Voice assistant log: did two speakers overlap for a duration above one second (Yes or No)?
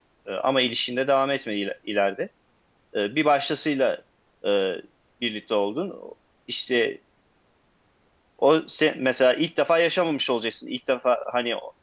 No